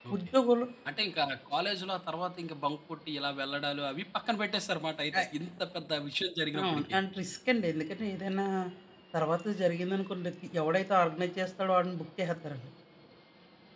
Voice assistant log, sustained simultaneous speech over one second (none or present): none